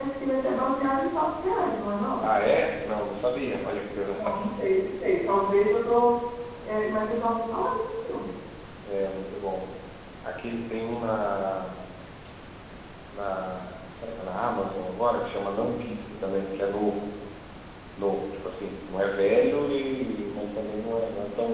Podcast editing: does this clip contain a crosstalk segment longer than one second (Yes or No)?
No